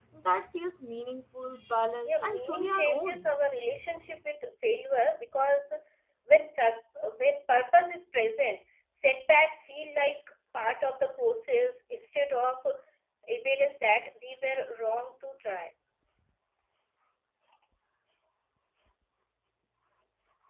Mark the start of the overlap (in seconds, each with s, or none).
2.1 s